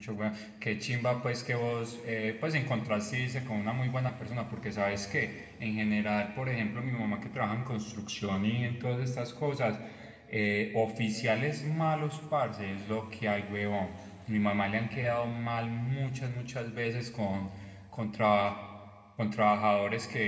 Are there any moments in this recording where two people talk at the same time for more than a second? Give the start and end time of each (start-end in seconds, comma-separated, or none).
none